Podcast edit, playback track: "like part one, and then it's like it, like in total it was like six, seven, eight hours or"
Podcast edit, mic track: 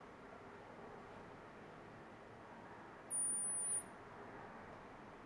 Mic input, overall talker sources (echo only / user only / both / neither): neither